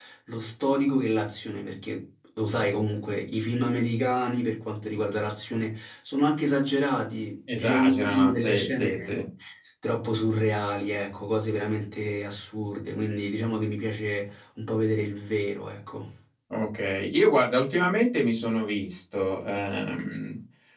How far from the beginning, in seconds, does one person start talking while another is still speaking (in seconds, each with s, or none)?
7.5 s